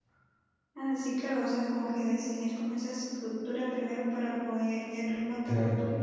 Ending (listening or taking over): taking over